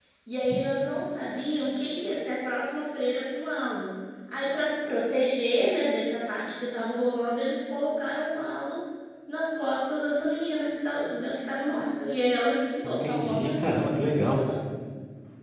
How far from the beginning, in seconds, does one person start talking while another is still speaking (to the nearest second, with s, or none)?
13 s